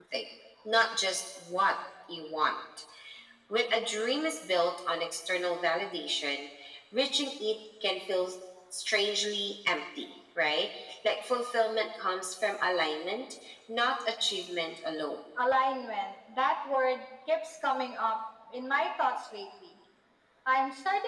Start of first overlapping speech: none

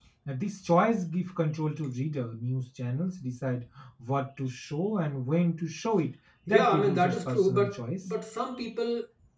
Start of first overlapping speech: 6.5 s

